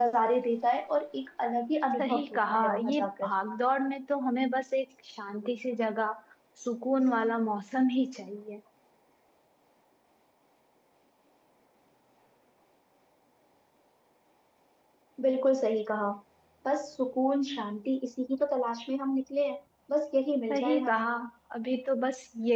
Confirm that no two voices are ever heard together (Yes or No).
No